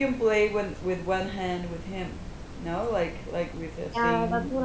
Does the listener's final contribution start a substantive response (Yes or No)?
Yes